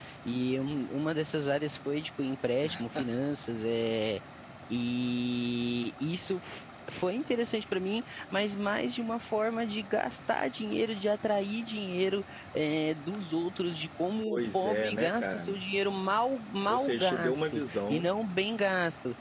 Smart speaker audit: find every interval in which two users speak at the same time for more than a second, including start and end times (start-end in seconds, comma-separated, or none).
14.2-15.6, 16.7-18.1